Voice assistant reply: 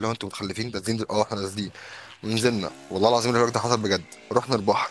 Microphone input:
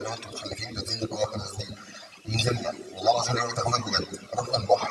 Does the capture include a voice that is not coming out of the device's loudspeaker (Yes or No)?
No